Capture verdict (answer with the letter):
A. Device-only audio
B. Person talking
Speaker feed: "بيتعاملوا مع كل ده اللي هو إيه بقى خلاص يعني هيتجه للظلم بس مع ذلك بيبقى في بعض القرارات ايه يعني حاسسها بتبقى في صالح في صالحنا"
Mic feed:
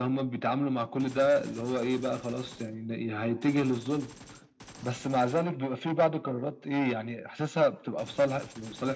A